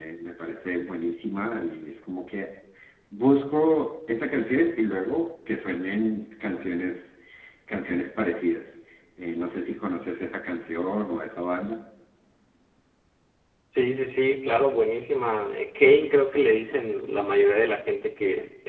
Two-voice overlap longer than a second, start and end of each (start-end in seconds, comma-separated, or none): none